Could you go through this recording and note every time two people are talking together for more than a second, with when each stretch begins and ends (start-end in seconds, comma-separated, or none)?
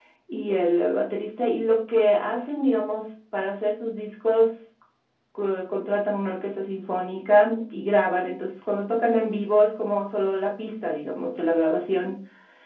none